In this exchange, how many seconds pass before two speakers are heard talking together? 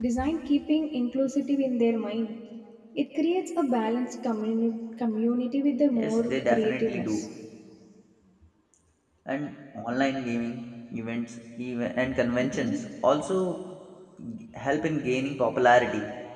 5.9 s

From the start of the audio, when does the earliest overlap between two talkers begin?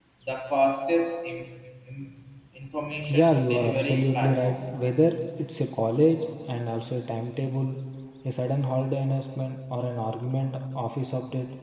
3.1 s

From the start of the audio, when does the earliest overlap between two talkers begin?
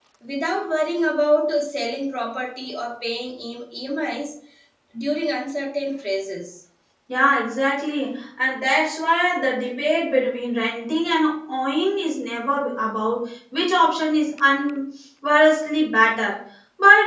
none

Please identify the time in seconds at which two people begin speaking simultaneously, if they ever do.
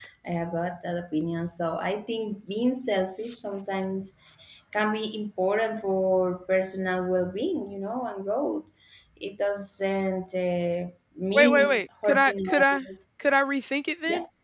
11.3 s

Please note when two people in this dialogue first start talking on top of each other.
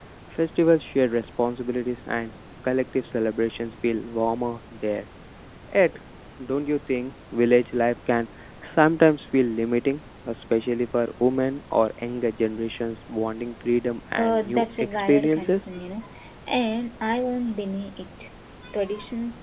14.1 s

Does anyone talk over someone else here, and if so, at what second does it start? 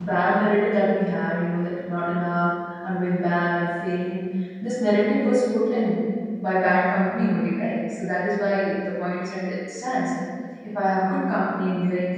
none

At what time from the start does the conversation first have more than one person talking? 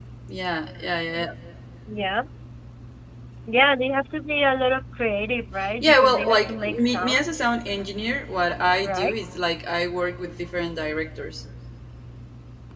5.8 s

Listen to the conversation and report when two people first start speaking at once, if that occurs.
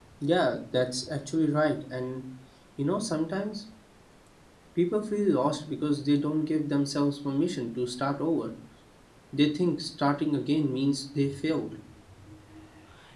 none

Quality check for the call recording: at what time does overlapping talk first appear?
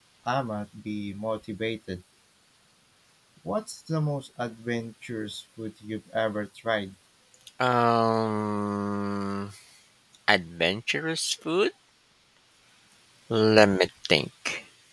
none

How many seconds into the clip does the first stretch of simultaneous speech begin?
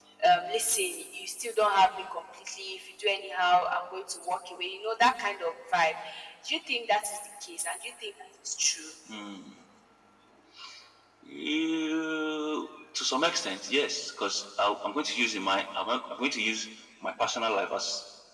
none

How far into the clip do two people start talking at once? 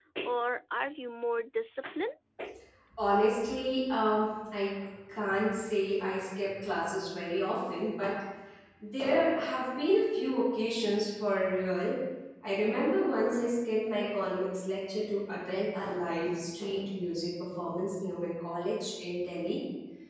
none

